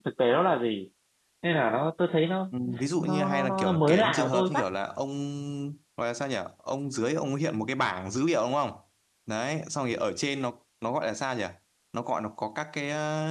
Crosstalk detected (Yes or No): Yes